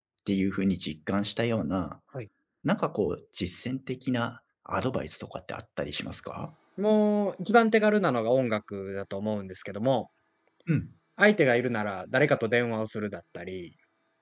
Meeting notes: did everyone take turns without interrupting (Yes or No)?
Yes